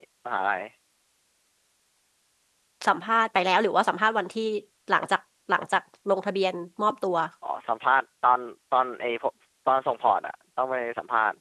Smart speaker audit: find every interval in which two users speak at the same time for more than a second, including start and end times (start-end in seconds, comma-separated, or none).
none